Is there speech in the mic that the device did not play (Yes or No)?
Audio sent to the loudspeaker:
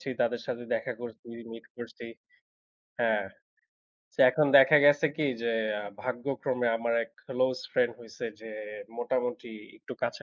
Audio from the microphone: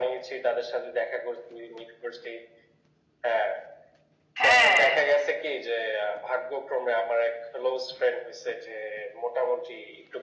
Yes